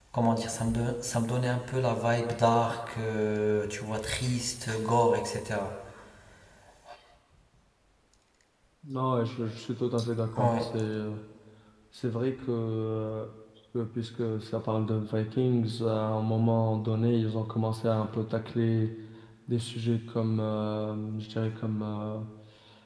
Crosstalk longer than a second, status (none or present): none